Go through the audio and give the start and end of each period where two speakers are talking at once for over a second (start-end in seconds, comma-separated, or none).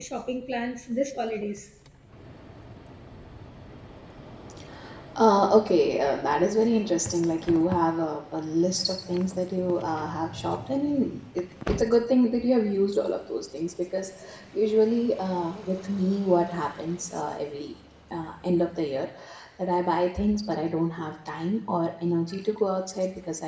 none